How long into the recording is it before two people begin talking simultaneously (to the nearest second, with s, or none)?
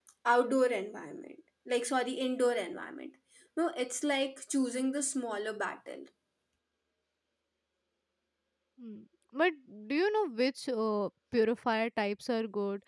none